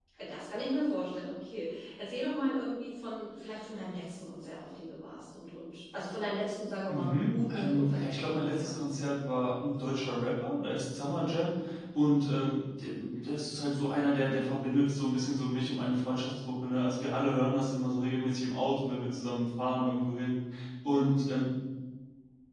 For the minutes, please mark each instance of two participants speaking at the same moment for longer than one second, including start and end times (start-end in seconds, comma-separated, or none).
6.9-8.8